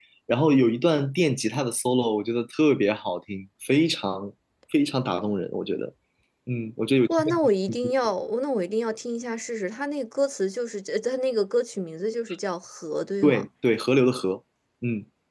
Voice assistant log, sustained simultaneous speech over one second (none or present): none